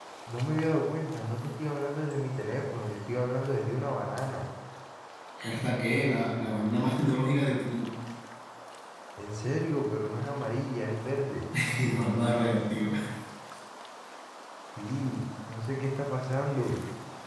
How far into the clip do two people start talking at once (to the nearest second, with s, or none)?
none